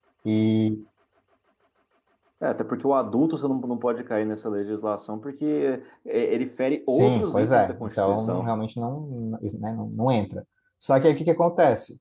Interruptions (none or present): present